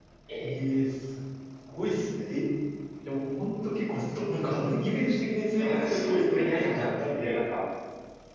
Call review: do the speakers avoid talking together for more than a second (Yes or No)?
No